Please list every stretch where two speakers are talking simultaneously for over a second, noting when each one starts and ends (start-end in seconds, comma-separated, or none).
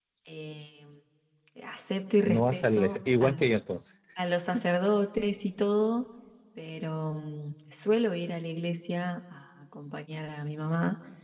2.2-3.4